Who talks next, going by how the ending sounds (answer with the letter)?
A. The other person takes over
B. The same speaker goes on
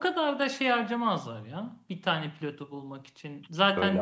B